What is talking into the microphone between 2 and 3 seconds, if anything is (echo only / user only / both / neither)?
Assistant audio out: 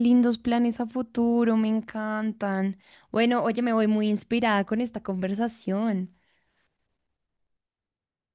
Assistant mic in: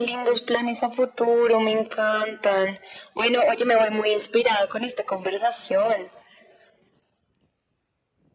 echo only